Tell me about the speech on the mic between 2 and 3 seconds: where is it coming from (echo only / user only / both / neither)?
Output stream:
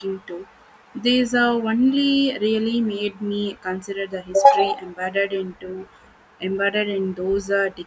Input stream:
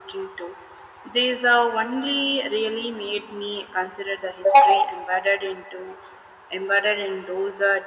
echo only